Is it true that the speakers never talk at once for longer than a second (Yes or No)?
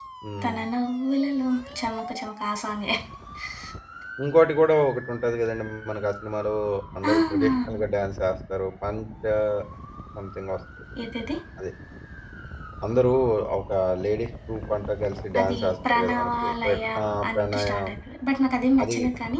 No